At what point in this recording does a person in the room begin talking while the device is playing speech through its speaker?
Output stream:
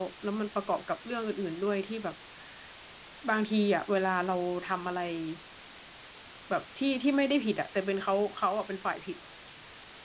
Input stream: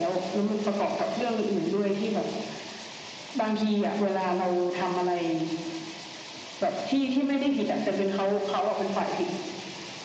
none

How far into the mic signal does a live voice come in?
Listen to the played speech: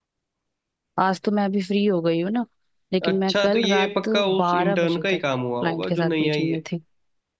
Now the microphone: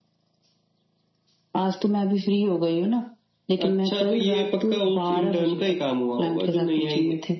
none

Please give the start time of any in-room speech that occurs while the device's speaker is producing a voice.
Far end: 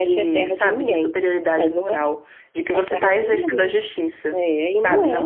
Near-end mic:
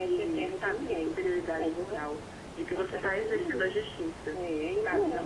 none

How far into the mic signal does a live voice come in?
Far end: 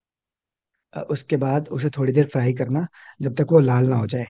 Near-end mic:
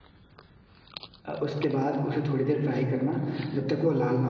none

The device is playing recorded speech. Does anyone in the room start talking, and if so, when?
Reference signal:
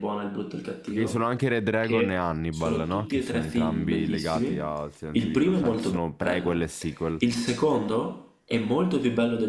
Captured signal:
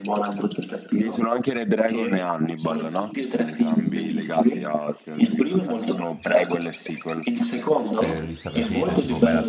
8 s

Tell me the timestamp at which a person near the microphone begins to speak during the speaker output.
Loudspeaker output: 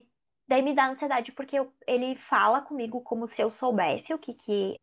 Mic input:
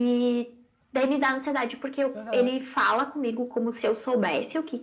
2 s

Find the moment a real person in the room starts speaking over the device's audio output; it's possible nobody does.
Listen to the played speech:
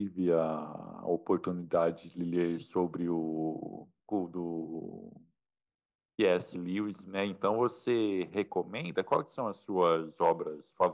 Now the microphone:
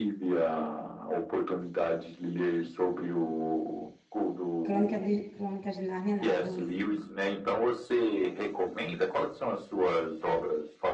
5 s

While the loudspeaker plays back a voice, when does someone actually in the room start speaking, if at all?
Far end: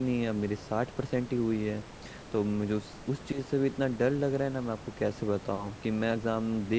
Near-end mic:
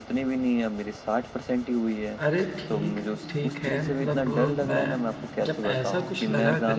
2 s

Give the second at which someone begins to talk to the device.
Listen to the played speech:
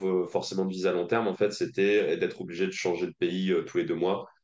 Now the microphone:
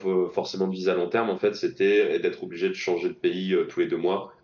none

